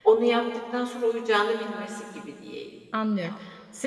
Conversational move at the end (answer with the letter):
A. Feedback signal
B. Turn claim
B